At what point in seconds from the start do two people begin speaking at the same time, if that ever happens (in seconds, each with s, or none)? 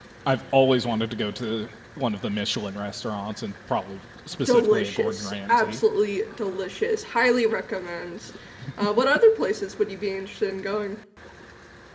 4.5 s